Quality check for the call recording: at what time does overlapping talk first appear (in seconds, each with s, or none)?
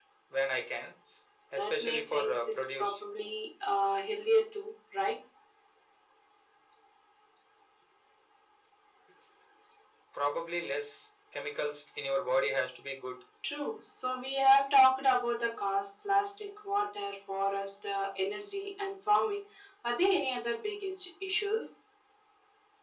1.6 s